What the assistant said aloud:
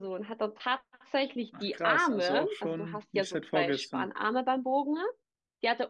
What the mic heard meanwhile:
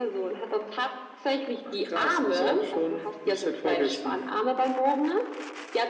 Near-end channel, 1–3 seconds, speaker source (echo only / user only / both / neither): echo only